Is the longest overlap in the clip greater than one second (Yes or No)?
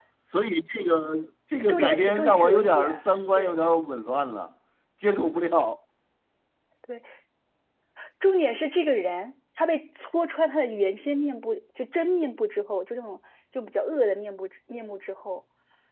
Yes